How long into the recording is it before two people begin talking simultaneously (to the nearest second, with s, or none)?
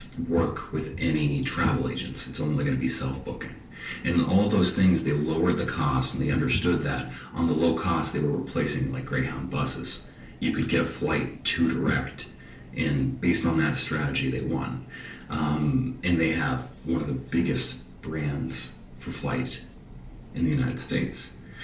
none